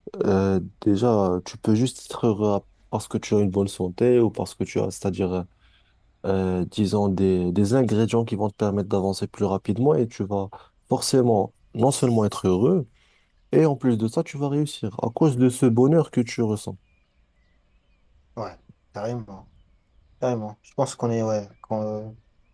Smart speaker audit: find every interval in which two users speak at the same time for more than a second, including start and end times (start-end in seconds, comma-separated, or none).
none